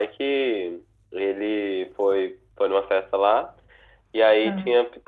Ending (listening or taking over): listening